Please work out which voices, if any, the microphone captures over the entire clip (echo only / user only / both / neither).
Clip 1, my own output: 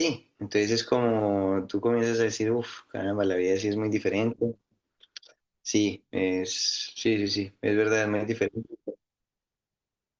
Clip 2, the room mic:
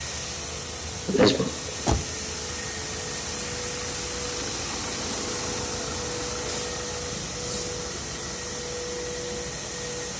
user only